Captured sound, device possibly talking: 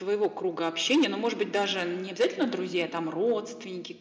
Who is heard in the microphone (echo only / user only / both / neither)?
echo only